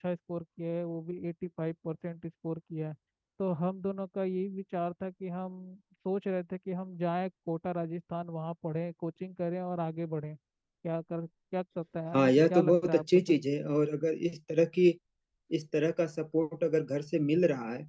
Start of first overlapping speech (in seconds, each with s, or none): 12.1 s